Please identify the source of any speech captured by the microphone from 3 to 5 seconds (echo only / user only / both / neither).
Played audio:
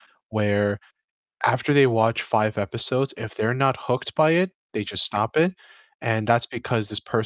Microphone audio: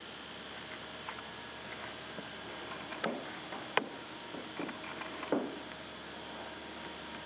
neither